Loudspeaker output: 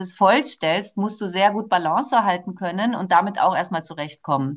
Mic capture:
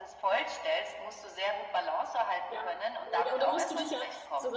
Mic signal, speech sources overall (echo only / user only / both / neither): both